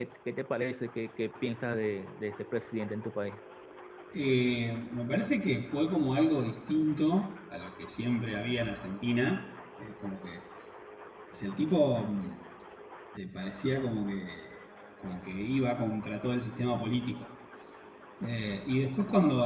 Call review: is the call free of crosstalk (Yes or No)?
Yes